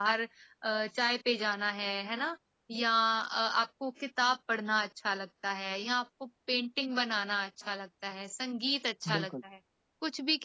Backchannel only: Yes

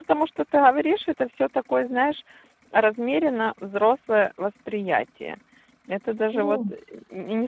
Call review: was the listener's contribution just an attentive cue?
Yes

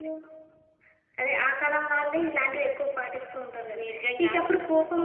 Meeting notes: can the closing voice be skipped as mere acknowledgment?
Yes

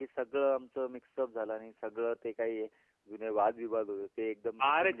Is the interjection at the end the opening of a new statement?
Yes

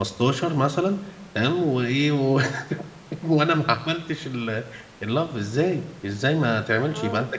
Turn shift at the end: No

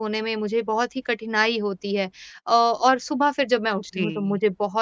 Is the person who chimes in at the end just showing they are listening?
Yes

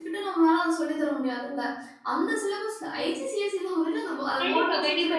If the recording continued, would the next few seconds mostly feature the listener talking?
Yes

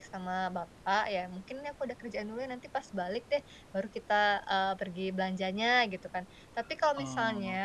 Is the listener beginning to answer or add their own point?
No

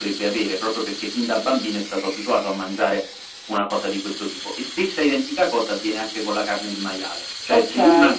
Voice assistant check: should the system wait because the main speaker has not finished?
Yes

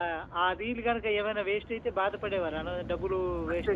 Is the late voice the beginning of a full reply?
Yes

